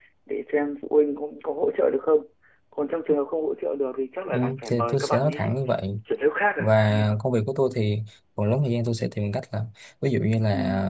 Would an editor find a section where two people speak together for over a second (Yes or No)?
Yes